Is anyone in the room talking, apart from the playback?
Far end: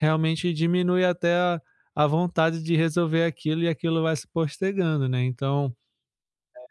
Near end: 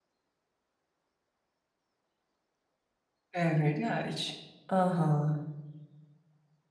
Yes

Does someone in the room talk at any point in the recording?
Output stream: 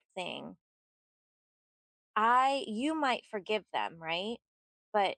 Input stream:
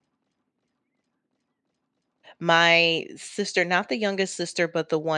Yes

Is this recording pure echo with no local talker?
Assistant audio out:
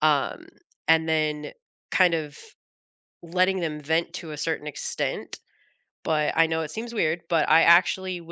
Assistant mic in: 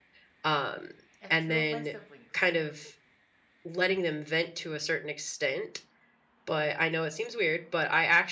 No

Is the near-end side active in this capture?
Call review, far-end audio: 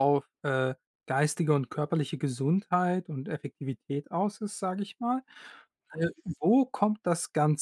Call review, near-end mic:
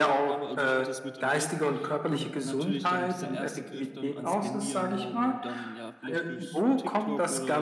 Yes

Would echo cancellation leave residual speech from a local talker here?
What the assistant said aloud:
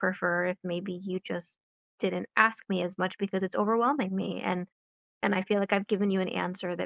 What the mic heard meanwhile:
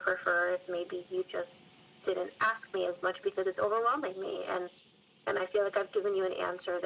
No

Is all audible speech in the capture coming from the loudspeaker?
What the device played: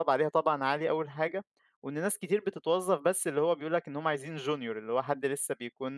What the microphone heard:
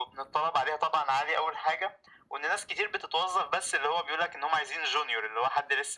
Yes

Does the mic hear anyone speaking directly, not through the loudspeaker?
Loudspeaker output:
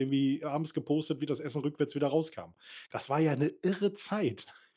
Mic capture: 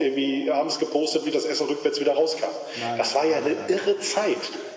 Yes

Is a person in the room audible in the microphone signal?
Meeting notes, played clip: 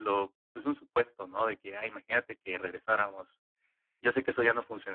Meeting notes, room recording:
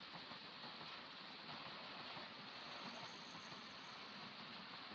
No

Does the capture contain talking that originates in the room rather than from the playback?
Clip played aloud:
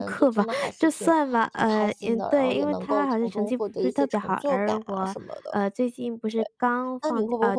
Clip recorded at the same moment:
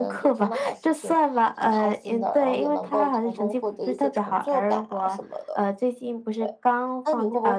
No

